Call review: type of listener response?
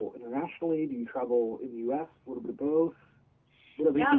taking over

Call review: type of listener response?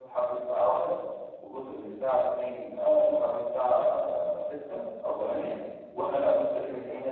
listening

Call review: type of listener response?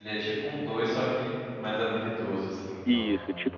taking over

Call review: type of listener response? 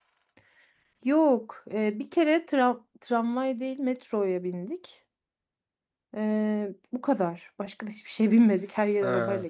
taking over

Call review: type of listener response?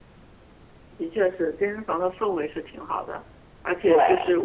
listening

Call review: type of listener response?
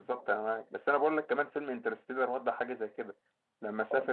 taking over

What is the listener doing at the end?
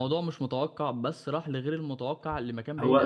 taking over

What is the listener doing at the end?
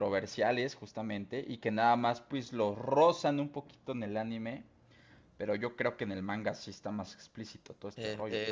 taking over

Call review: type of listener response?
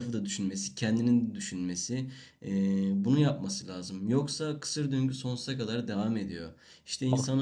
listening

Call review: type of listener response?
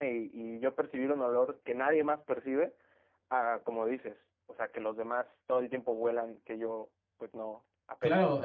taking over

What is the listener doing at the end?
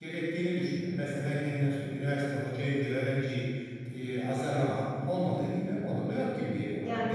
taking over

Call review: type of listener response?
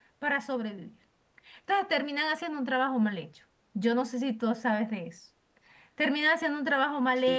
listening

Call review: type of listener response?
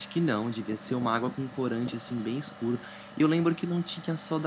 listening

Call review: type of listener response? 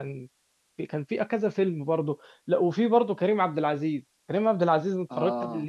listening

